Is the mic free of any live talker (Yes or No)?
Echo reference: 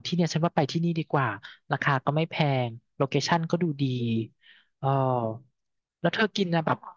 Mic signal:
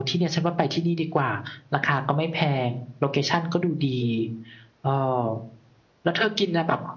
Yes